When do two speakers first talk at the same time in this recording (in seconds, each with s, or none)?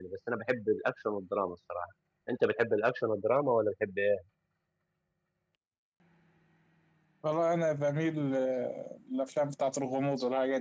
none